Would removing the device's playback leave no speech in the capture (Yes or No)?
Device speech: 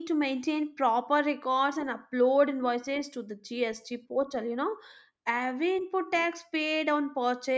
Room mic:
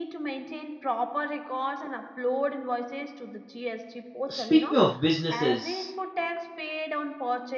No